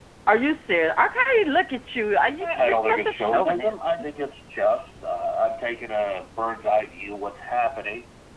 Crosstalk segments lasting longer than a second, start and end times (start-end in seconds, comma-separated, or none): 2.4-3.8